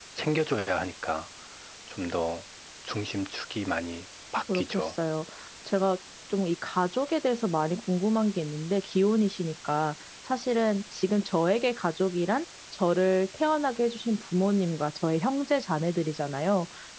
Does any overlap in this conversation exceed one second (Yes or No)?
No